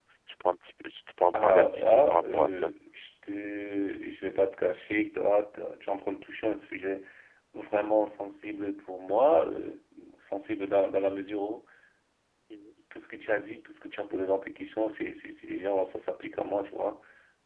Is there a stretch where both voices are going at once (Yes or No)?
Yes